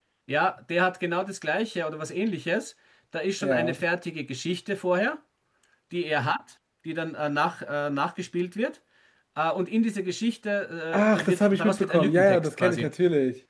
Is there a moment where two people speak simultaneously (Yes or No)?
Yes